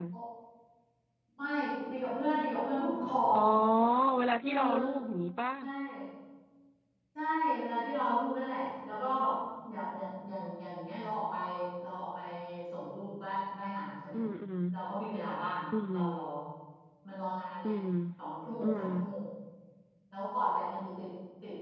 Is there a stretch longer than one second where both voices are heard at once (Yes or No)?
No